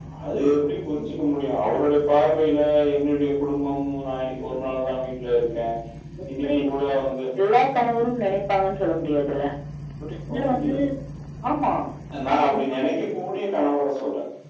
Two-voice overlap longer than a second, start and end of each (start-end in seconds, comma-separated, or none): none